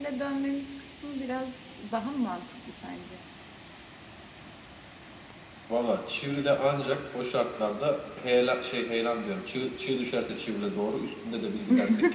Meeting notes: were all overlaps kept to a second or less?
Yes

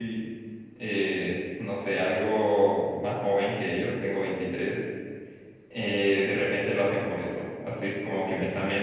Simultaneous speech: No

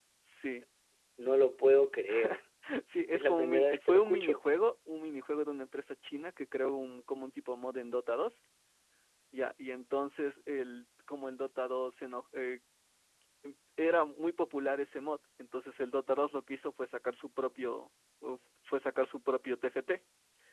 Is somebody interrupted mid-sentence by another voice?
Yes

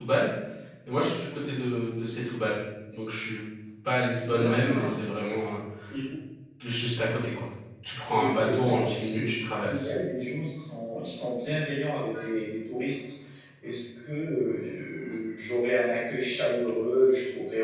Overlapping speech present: Yes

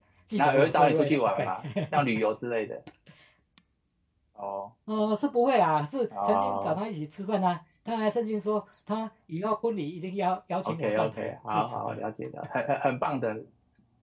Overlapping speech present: Yes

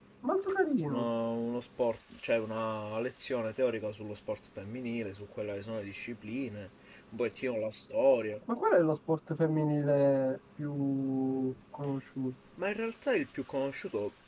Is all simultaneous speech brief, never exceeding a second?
Yes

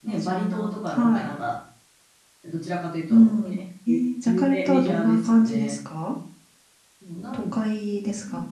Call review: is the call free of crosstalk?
No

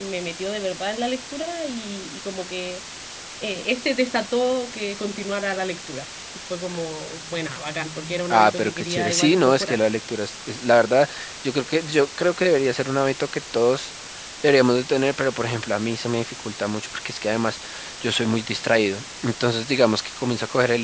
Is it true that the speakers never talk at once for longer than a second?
No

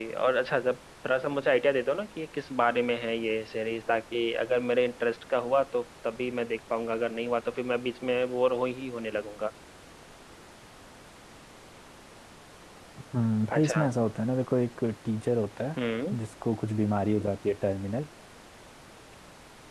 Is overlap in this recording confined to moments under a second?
Yes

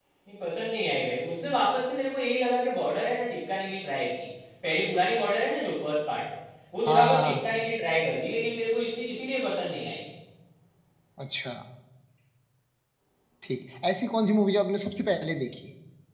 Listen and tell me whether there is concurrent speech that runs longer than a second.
No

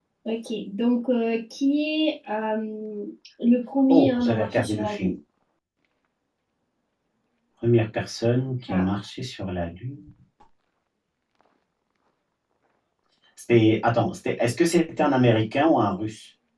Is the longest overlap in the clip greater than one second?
Yes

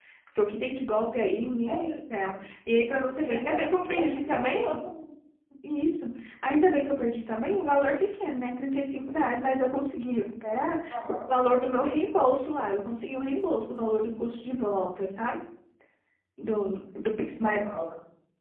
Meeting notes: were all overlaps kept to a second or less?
No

